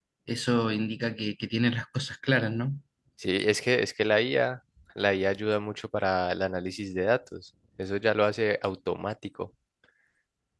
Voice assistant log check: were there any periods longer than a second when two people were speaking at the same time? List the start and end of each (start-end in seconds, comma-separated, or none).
none